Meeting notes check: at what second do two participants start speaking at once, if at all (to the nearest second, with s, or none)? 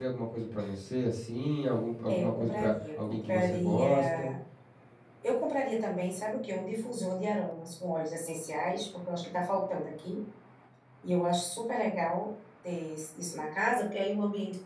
2 s